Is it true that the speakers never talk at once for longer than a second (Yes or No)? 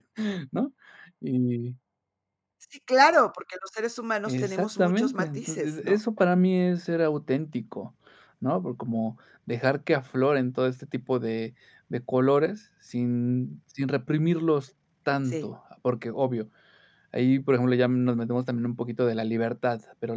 No